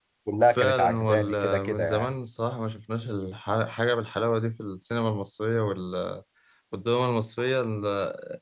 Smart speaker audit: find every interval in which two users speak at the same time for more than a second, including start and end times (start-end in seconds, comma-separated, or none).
0.6-2.1